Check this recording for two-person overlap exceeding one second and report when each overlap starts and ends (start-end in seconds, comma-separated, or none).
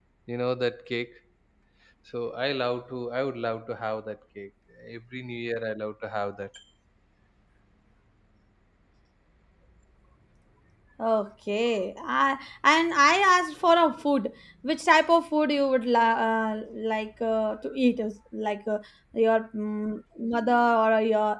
none